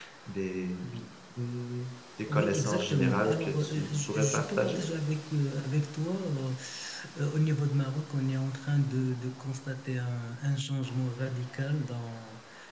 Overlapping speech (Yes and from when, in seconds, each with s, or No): Yes, from 2.3 s